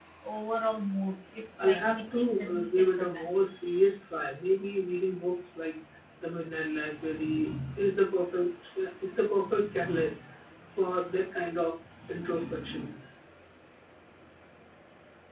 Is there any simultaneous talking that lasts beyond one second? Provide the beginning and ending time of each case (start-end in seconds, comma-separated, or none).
1.6-3.3